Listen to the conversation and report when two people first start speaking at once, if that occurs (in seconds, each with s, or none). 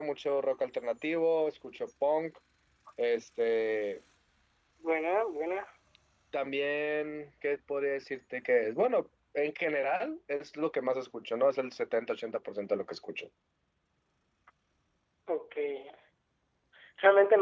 none